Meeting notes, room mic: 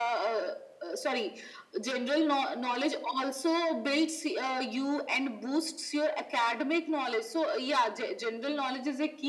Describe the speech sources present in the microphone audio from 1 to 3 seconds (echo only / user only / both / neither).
echo only